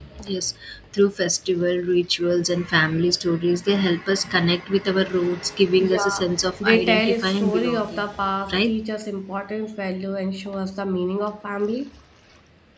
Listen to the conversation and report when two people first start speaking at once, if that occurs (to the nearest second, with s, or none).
6 s